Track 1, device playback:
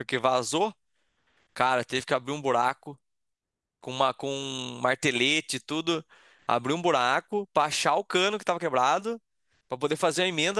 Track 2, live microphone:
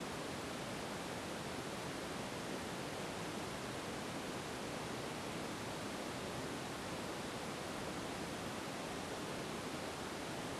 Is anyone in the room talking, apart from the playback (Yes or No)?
No